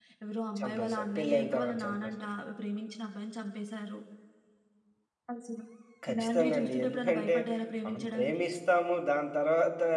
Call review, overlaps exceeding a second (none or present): present